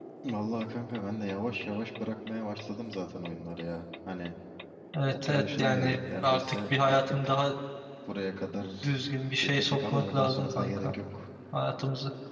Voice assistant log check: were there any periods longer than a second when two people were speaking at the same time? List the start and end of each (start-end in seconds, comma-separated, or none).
5.1-7.4, 9.4-10.9